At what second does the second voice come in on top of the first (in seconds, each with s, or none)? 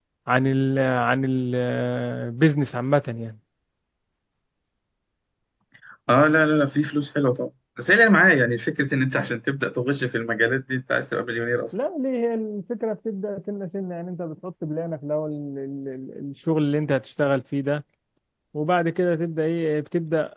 none